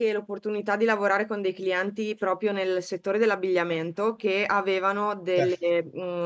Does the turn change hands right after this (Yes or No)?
No